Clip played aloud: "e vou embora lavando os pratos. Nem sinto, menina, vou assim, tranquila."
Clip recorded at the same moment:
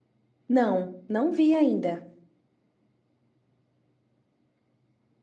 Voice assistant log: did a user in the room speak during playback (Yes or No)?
Yes